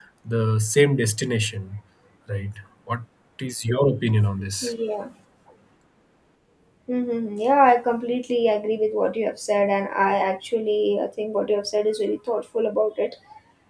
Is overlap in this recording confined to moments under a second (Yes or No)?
Yes